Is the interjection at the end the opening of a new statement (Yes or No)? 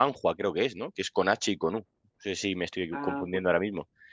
No